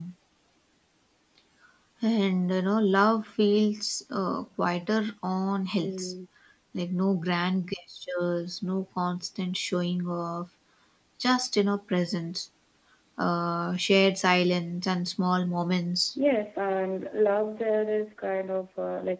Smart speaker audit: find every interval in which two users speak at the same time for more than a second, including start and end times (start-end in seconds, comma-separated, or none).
none